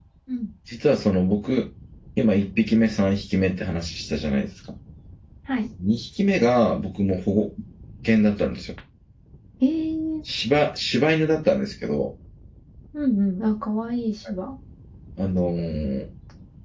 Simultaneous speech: No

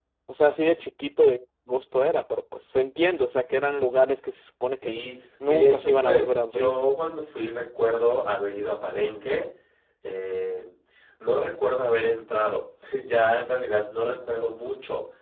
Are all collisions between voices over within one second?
No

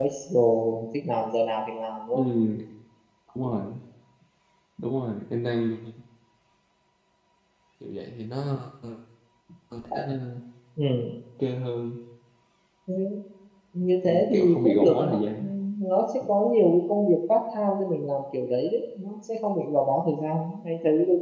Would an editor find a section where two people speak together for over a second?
Yes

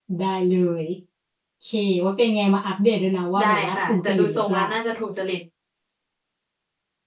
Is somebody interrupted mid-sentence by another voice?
Yes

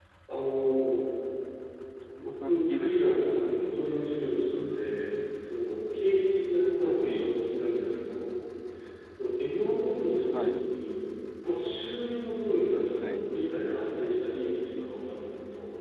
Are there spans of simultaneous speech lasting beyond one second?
Yes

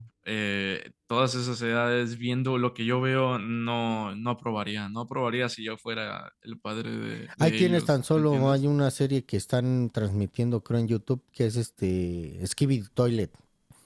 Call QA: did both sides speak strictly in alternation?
No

